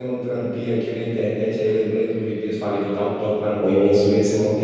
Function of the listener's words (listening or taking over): listening